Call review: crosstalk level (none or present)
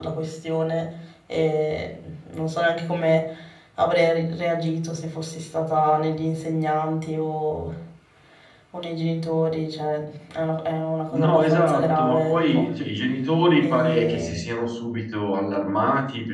present